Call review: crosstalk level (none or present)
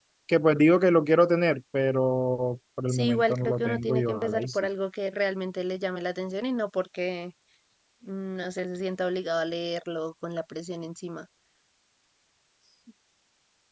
present